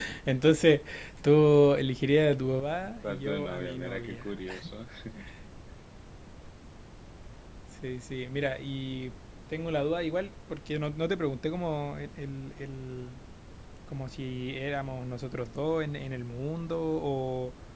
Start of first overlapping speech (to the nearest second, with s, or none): 3 s